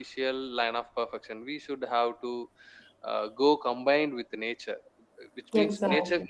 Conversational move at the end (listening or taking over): listening